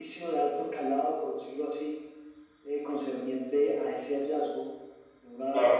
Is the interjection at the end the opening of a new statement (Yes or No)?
No